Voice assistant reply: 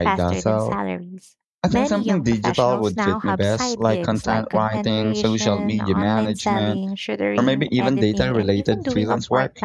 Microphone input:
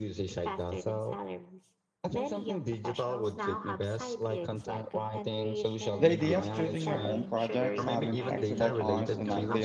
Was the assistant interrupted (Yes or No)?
Yes